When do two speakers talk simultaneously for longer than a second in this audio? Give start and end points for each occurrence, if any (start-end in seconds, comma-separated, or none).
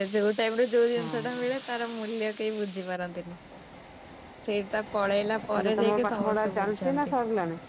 5.6-7.1